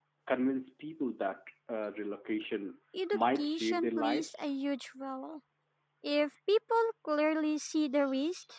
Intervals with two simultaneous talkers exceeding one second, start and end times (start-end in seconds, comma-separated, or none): 3.1-4.5